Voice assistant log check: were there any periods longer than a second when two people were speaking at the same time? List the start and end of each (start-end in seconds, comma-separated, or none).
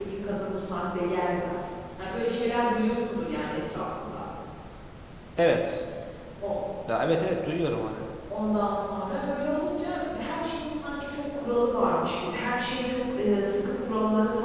none